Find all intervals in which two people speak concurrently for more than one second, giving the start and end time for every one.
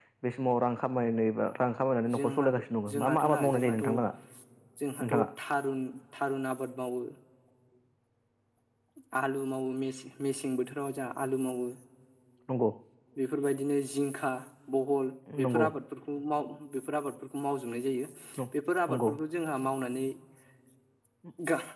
2.1-3.7

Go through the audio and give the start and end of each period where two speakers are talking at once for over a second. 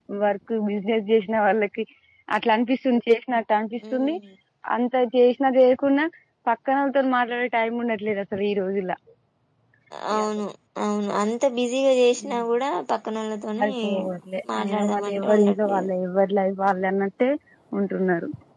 14.5-15.9

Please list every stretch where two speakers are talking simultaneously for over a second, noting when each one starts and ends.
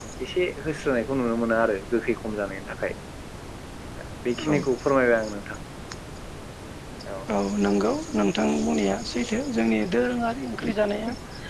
none

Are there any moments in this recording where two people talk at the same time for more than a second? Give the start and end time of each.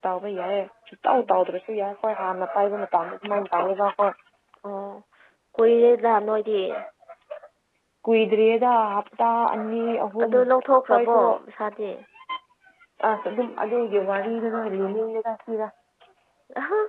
none

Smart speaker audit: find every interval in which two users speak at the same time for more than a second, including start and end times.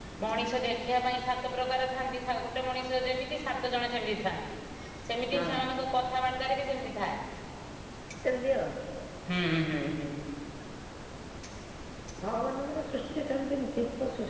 none

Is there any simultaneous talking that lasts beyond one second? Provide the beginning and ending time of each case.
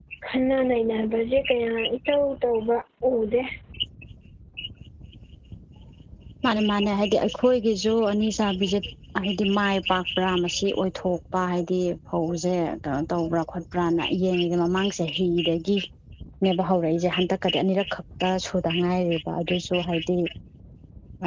none

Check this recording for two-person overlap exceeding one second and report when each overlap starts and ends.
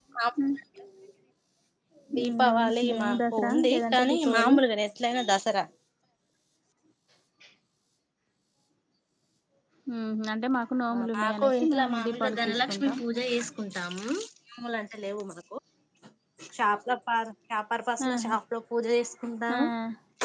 2.2-4.6, 11.2-13.0

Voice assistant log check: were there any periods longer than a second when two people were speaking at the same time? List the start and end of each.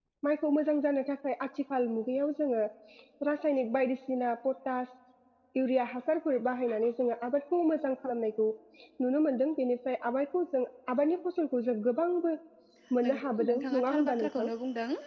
13.0-14.5

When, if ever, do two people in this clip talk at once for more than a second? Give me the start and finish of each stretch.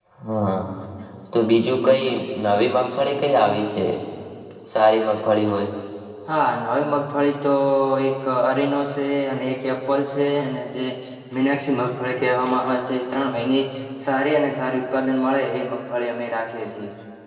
none

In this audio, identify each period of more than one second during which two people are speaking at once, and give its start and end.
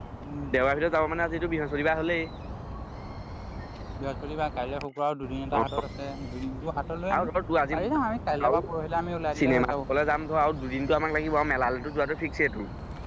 none

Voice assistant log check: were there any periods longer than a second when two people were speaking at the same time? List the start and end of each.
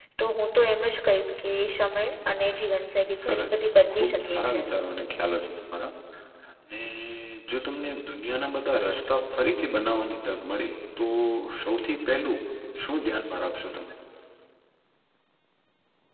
3.2-4.7

